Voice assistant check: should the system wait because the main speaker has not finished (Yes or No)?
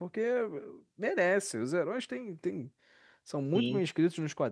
Yes